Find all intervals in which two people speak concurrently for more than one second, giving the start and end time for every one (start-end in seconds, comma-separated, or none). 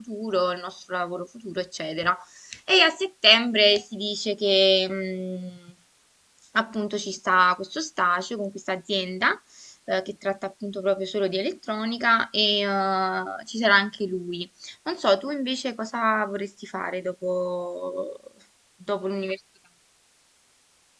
none